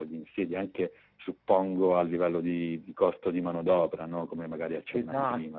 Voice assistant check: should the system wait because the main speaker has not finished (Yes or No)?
No